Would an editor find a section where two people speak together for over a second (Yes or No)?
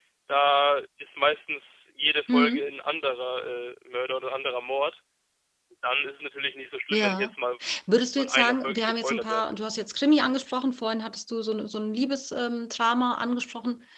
Yes